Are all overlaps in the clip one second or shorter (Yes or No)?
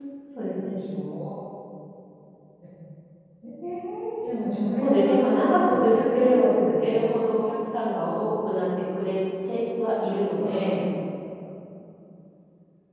No